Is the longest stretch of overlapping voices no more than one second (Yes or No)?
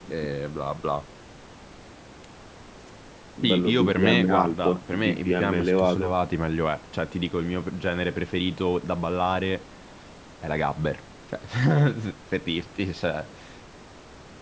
No